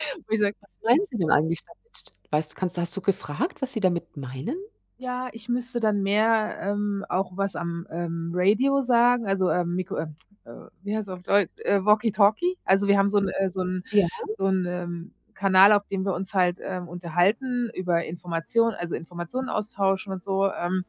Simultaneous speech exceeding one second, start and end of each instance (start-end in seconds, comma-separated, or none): none